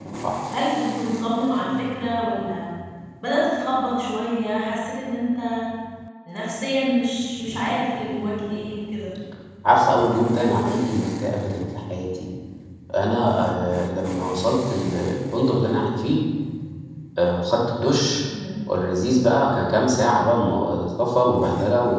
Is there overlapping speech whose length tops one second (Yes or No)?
No